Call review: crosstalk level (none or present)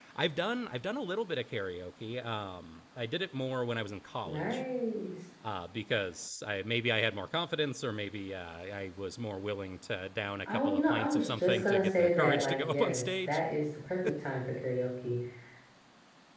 present